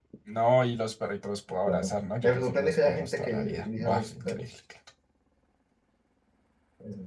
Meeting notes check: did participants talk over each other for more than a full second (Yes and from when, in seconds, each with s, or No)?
Yes, from 1.7 s